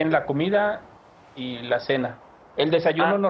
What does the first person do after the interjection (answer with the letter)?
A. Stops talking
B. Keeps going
B